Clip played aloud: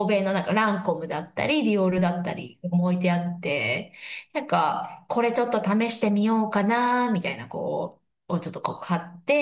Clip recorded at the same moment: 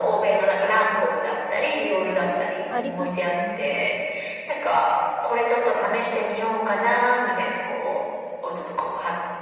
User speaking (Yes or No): Yes